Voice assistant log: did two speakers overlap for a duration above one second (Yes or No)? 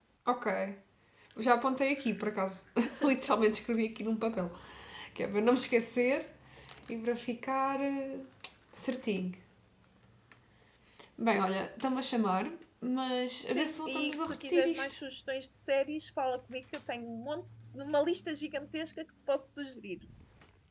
Yes